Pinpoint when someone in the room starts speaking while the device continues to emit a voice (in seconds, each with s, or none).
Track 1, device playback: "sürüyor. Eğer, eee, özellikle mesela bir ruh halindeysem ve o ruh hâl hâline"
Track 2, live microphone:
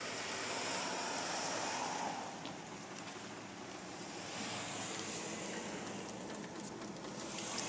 none